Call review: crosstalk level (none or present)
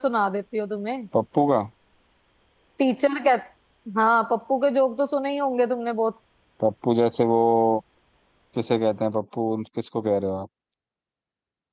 none